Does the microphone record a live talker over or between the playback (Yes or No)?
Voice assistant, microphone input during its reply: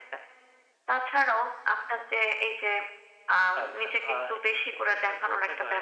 No